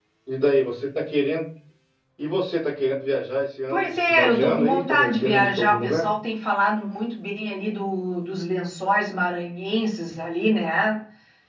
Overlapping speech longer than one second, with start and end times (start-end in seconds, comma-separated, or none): 3.7-6.1